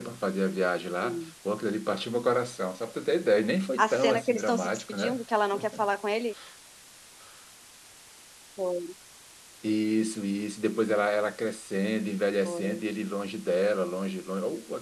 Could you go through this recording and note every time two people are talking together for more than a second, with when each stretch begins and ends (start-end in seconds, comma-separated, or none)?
3.8-5.2